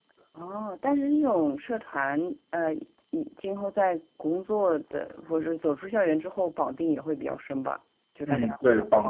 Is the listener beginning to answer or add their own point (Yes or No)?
Yes